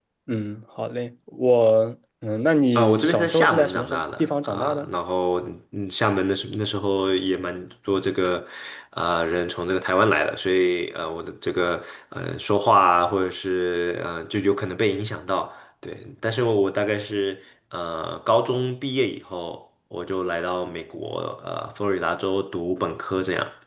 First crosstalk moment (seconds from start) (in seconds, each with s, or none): 2.8 s